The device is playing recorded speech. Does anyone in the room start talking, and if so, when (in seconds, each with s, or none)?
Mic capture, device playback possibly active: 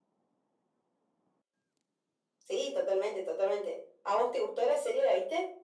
none